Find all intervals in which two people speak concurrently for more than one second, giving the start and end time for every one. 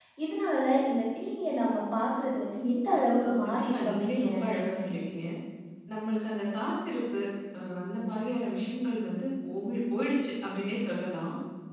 3.2-4.8

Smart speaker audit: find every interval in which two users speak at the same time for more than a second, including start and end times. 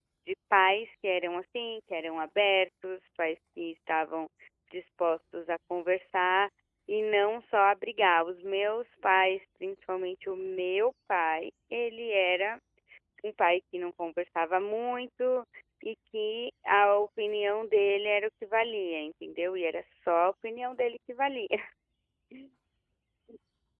none

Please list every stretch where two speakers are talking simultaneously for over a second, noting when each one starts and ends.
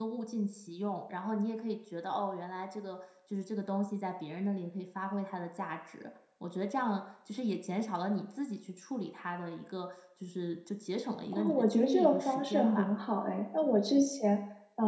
11.3-12.8

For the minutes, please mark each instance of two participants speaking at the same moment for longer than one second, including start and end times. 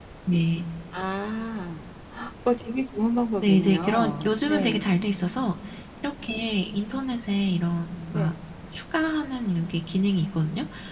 3.4-4.9

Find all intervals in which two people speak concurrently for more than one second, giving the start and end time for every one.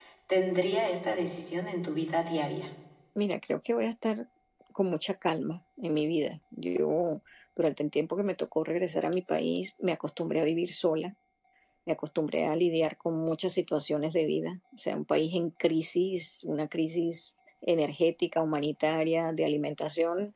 none

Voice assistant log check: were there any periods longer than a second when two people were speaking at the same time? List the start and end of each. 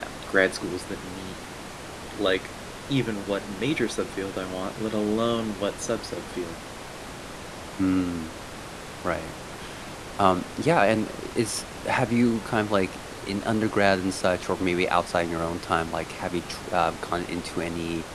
none

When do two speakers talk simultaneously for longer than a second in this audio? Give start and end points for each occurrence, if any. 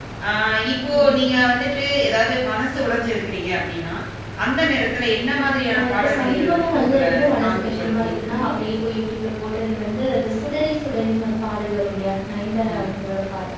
5.7-8.6

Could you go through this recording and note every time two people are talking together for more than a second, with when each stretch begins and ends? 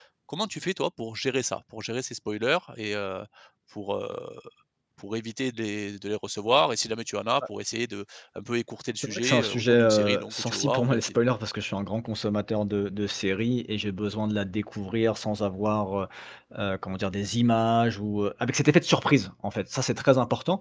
9.0-11.1

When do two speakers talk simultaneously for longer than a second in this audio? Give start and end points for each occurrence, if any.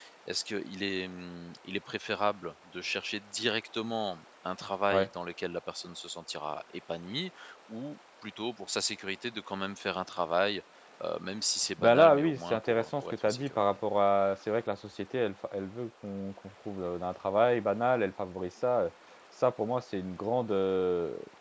11.8-13.6

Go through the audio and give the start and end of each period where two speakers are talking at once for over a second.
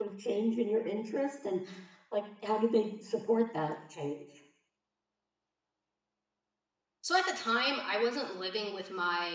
none

